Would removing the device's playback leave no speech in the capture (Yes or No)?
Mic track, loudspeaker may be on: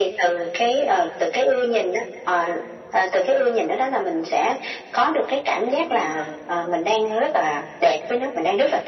No